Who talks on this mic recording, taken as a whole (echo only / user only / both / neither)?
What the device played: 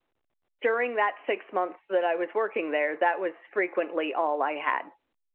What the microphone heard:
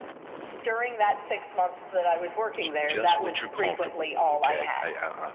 both